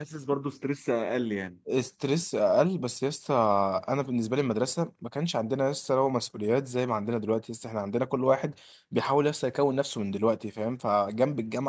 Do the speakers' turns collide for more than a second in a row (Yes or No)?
No